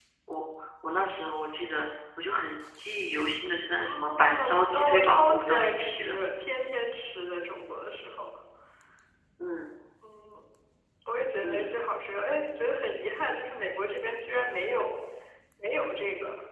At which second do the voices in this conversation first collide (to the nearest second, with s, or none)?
4 s